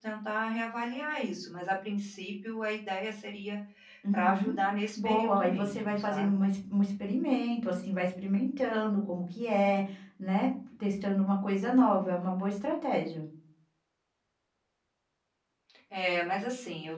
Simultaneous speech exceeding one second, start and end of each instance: 5.0-6.4

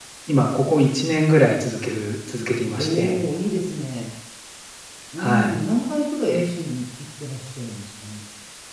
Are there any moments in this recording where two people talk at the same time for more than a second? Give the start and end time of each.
none

